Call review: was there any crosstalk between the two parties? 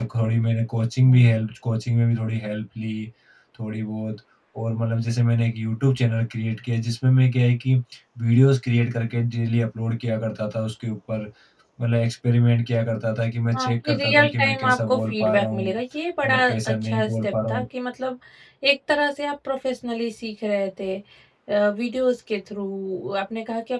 Yes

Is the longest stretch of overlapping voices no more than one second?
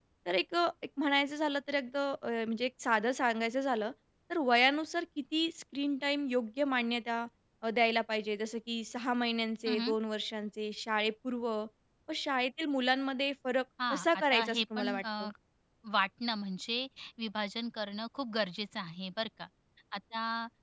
No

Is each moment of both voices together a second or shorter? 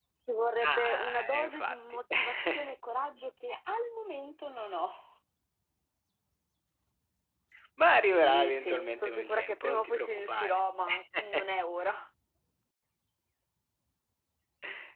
No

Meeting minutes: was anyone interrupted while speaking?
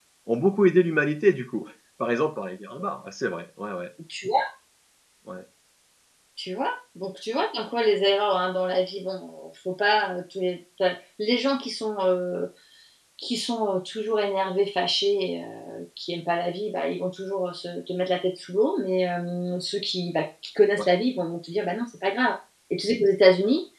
No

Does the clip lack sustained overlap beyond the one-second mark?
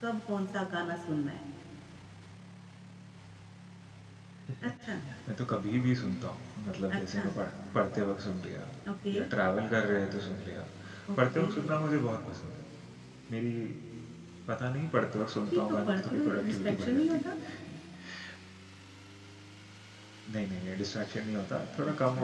No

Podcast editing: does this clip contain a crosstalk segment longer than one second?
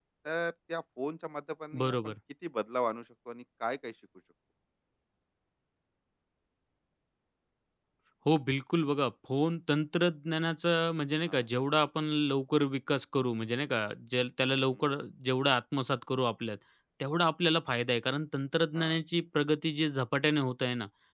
No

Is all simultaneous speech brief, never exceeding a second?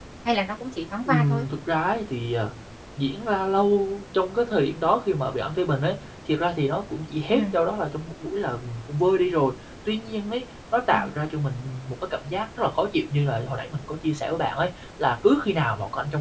Yes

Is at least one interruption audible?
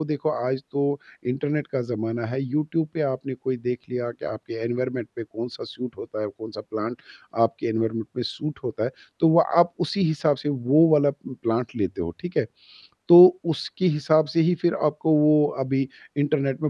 No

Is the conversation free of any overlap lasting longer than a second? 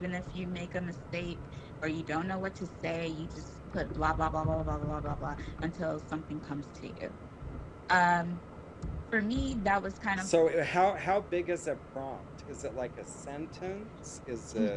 Yes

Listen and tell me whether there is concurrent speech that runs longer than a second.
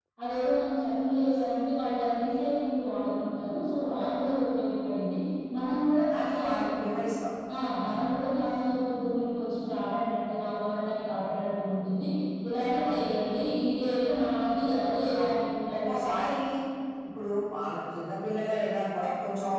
No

